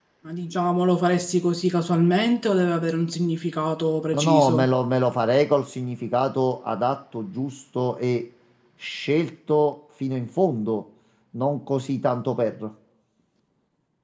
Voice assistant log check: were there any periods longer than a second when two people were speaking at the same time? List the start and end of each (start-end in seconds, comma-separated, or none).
none